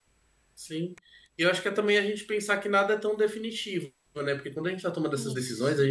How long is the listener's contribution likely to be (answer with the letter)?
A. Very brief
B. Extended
A